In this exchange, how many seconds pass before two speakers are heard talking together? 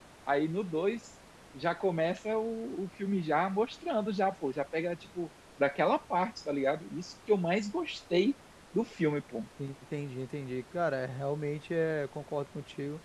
none

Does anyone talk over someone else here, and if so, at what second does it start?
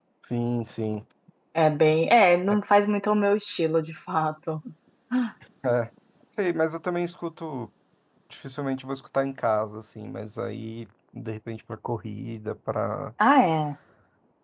none

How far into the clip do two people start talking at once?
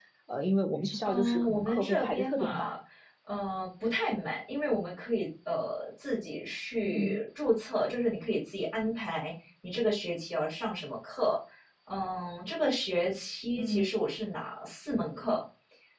1.0 s

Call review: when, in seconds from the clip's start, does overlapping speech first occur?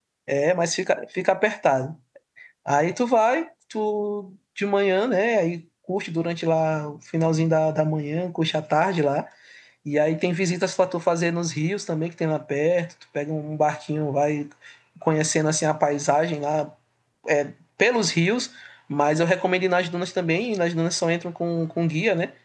none

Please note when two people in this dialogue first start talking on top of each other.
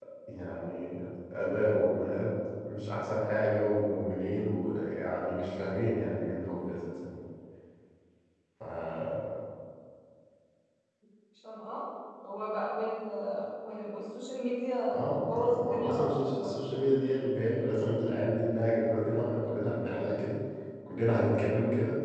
14.9 s

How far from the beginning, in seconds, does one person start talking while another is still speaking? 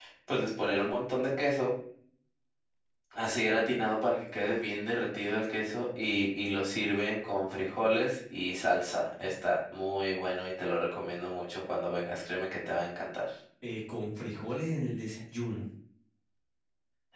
none

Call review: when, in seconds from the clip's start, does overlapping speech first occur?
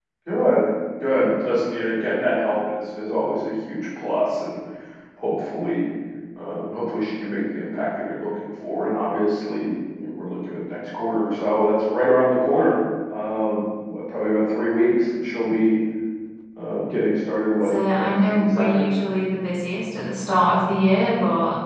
17.6 s

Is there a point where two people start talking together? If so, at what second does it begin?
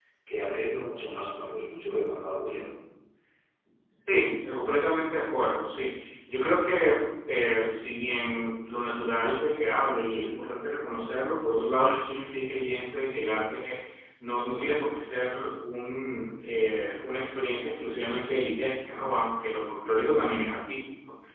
none

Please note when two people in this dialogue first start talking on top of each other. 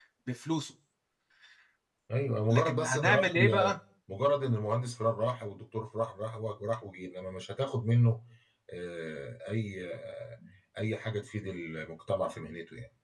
2.5 s

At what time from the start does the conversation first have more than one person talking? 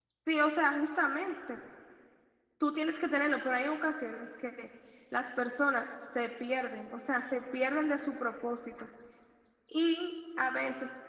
none

